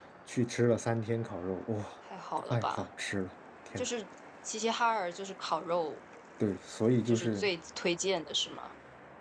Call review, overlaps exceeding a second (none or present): none